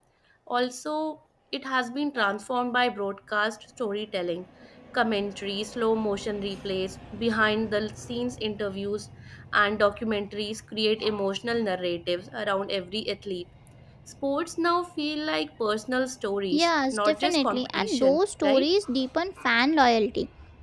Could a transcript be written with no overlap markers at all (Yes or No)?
No